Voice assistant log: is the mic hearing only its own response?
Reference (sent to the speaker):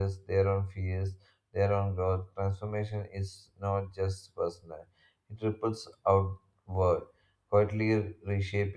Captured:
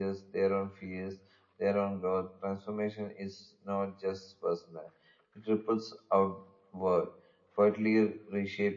Yes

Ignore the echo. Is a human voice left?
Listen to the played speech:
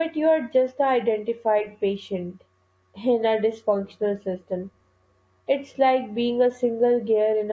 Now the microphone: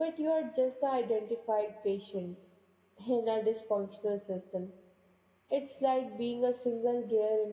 No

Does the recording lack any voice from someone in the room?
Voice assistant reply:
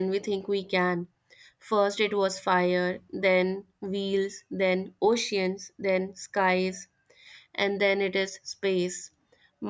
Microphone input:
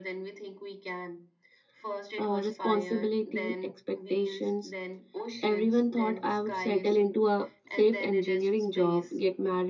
No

